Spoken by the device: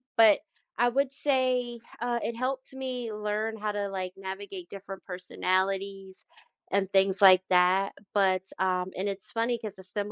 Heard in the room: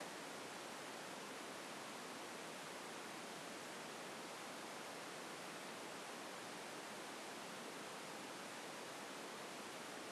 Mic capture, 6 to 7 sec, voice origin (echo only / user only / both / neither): neither